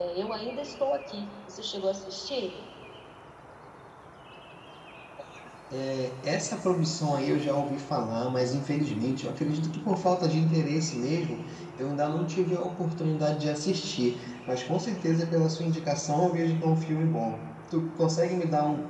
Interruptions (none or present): none